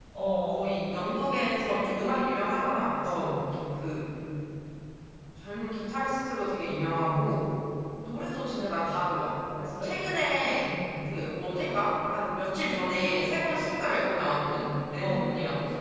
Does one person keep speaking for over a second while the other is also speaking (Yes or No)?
No